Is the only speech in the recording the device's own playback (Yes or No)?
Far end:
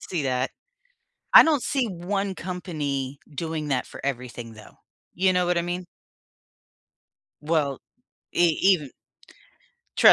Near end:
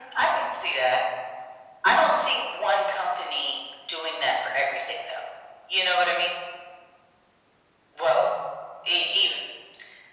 Yes